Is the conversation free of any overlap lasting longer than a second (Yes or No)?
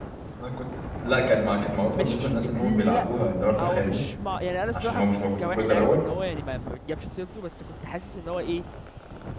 No